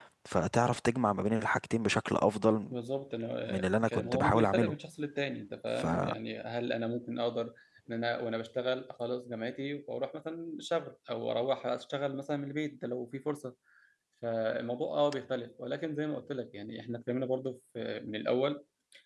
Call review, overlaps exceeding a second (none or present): present